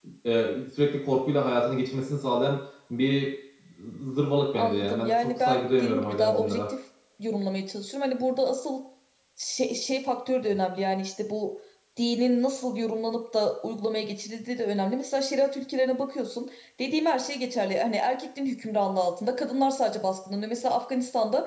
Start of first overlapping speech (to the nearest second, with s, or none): 5 s